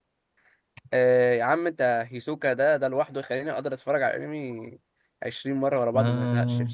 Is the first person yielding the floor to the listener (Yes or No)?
Yes